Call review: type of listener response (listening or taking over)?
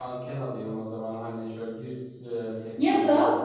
taking over